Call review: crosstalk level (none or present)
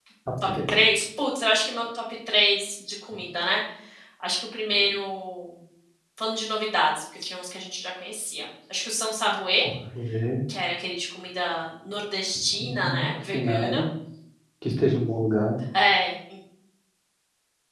present